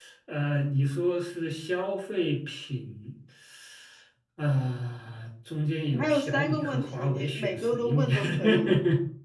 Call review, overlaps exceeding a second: present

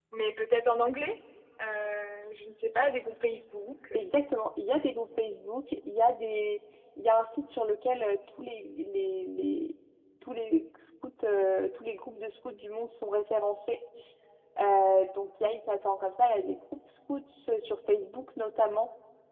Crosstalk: none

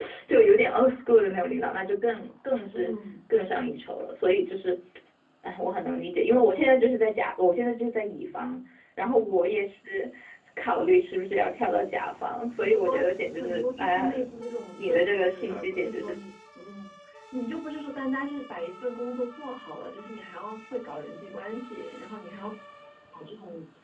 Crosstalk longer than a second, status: present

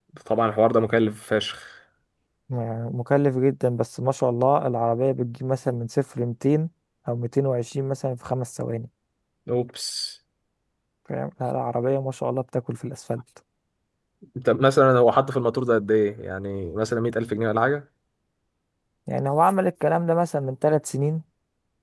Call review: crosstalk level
none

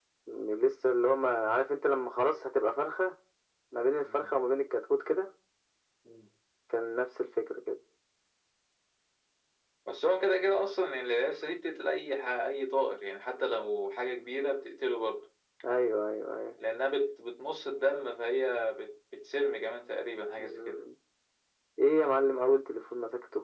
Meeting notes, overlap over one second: none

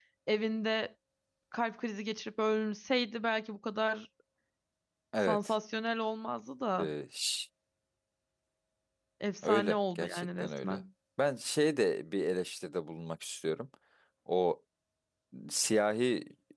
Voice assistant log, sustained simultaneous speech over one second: present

